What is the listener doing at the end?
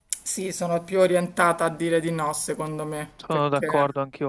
taking over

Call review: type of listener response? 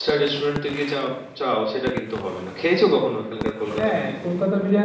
taking over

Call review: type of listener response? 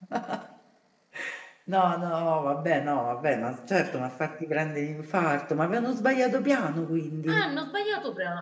taking over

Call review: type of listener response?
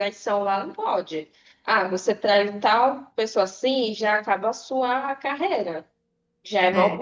listening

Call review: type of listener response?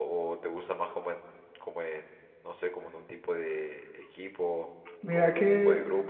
taking over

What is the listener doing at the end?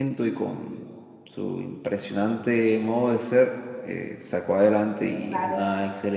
listening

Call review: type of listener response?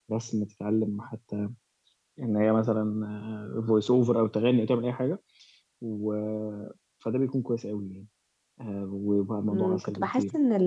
taking over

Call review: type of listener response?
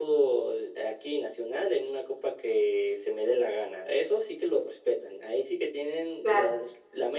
taking over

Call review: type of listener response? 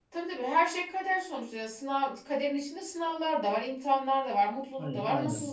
listening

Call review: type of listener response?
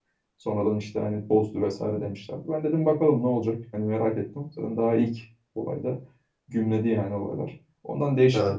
listening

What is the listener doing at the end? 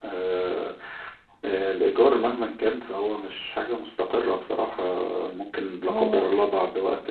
listening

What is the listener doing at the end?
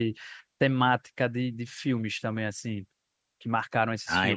taking over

